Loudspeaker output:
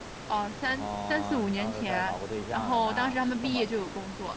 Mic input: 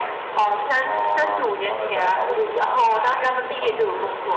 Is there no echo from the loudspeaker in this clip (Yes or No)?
No